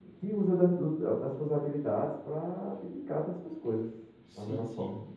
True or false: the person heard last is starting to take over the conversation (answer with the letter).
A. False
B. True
B